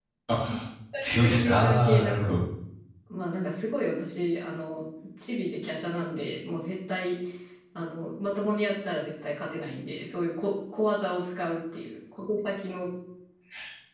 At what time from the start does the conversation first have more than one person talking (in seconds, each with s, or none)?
1.2 s